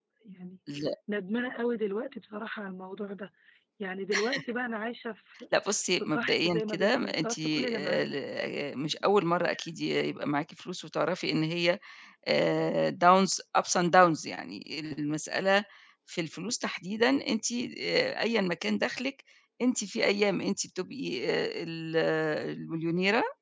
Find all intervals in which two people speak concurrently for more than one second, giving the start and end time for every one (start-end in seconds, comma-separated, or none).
6.0-8.1